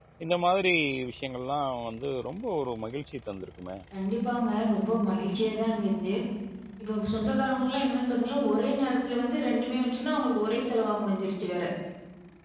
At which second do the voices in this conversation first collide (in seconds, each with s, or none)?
none